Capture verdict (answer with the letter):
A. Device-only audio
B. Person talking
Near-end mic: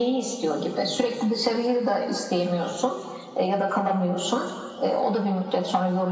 A